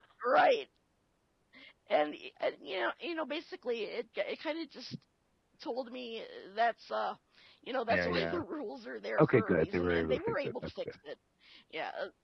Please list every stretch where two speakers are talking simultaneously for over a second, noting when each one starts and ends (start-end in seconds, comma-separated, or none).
9.2-10.8